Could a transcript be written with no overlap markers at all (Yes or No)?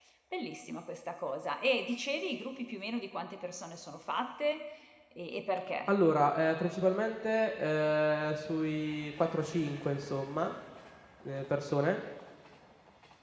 Yes